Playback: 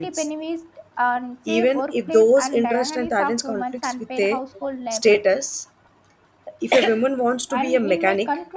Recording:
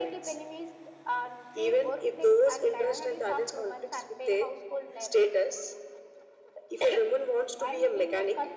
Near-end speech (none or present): none